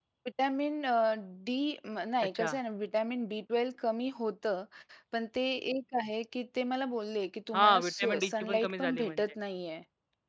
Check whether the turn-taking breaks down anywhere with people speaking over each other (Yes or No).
Yes